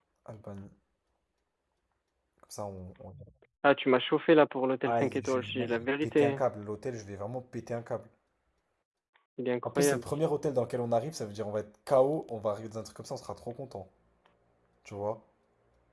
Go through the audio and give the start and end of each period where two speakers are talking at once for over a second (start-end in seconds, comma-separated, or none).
4.8-6.4